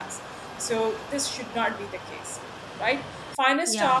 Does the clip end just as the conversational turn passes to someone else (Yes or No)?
No